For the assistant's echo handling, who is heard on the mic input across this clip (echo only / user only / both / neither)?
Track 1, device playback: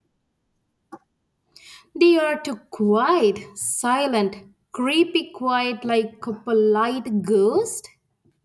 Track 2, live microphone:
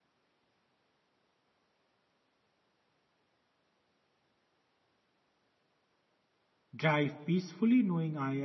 user only